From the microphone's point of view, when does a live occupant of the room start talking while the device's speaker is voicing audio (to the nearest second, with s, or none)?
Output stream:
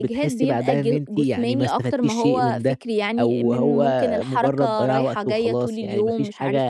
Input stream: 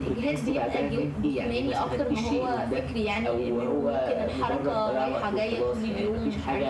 none